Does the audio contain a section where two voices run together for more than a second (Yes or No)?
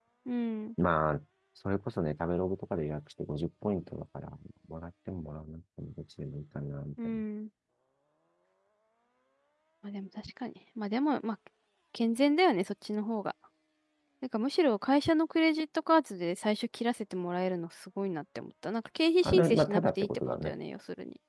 Yes